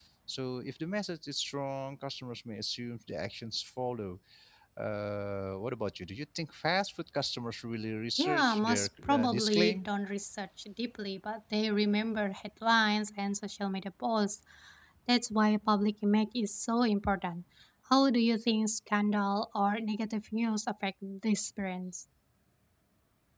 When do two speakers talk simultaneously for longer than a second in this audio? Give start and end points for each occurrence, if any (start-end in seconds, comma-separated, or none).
8.2-9.9